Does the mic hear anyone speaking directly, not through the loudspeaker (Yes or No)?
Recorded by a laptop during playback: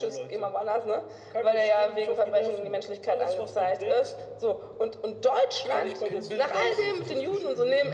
Yes